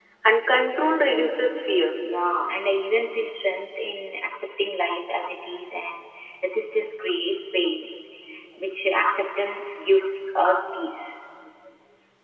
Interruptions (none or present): none